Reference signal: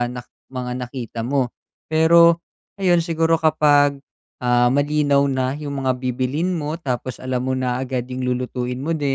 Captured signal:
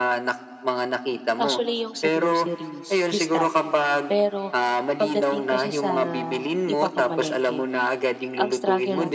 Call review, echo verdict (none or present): present